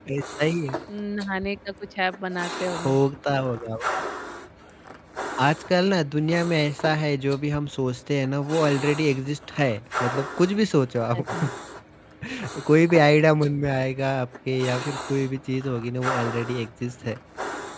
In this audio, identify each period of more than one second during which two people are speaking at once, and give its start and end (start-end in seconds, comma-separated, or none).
none